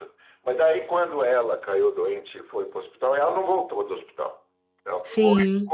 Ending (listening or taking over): listening